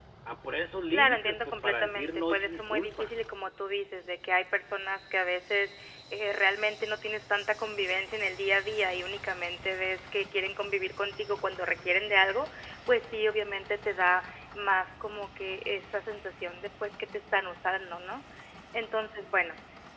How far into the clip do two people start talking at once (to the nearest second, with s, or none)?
1 s